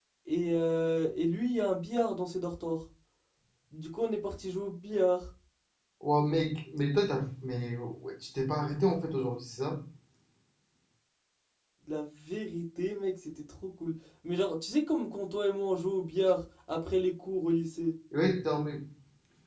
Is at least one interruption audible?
No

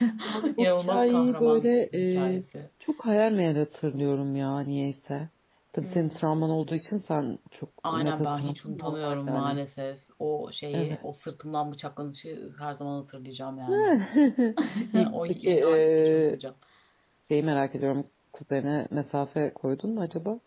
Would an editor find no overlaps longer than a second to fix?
No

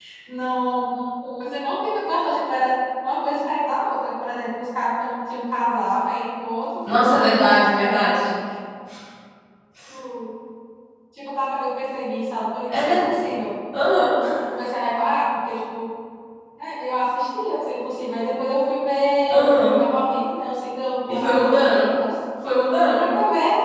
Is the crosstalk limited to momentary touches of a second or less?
No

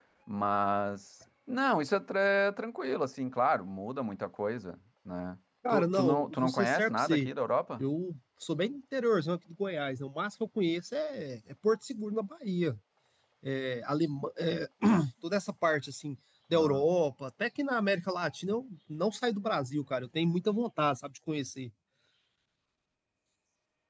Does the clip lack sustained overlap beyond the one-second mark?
No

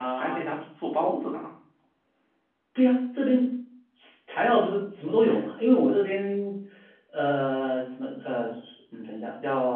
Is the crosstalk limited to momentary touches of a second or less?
Yes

